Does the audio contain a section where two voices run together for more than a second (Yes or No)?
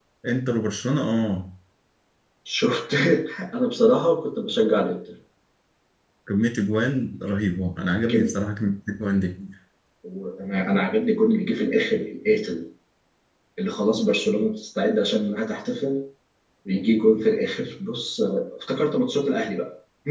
No